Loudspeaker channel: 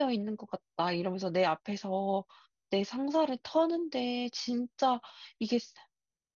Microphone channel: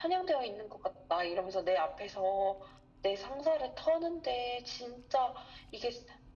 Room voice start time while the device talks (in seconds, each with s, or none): none